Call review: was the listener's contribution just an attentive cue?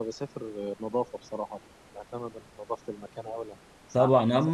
No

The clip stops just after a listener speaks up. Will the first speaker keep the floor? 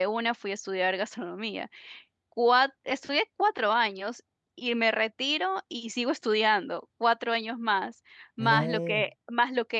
Yes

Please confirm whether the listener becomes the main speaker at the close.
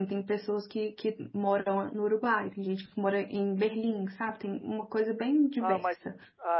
Yes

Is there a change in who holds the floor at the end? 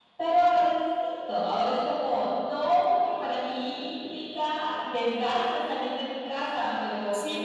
Yes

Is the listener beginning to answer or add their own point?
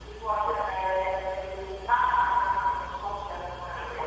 Yes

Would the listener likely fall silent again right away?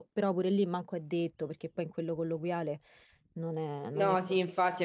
No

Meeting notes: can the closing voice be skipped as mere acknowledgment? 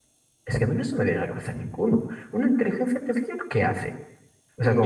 No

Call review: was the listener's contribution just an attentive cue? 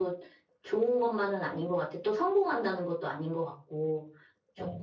No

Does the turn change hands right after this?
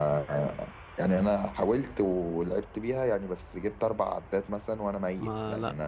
Yes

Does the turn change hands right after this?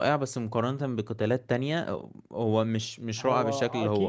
Yes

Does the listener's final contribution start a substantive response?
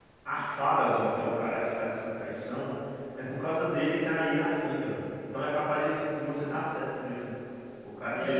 Yes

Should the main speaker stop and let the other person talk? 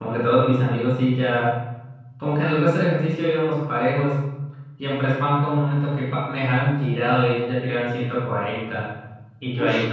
No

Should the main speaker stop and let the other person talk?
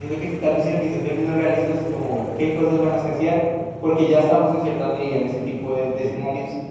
No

